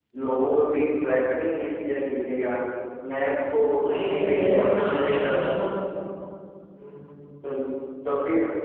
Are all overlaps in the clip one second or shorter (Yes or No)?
No